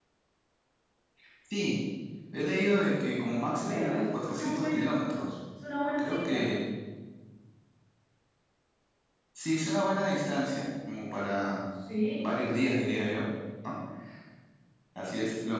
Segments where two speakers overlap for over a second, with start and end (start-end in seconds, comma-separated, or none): 3.6-5.0